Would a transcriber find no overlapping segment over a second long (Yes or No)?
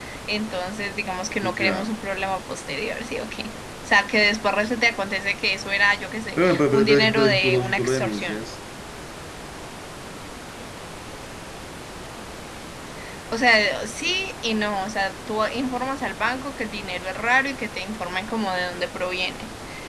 No